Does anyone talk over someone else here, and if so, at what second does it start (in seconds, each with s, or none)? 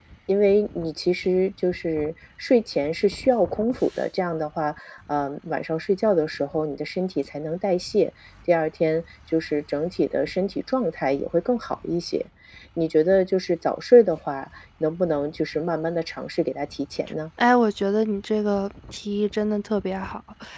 none